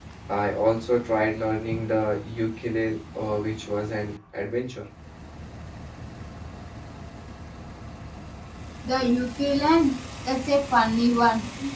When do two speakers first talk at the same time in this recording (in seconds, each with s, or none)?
none